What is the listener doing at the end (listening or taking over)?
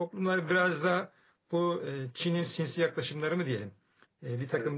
listening